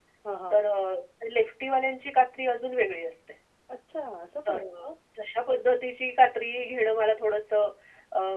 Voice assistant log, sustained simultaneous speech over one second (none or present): none